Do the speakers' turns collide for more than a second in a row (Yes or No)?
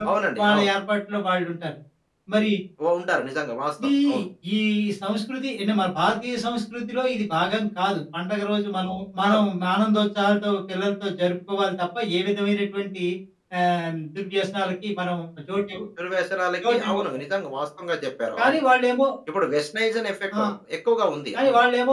No